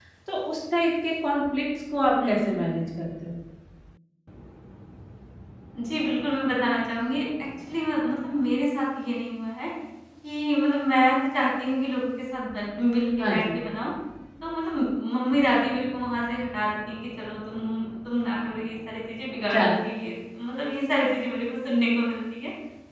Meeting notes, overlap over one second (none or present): none